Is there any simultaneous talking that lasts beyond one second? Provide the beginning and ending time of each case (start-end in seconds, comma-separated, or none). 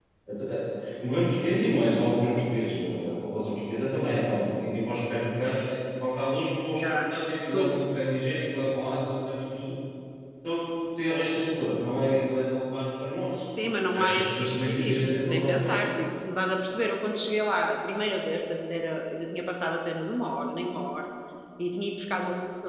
13.6-15.8